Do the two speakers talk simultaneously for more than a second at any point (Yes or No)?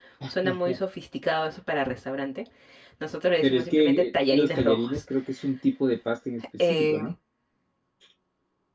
Yes